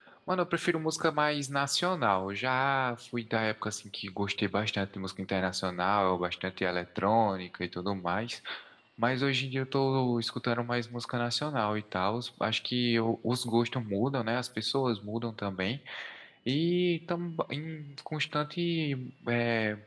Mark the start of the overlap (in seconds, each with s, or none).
none